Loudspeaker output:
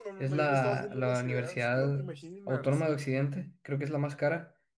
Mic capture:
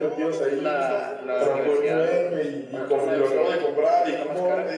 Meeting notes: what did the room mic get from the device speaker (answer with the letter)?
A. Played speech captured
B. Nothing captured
A